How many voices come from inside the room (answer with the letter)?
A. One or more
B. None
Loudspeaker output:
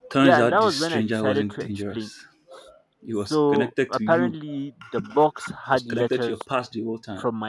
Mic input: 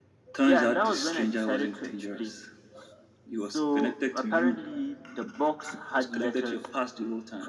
B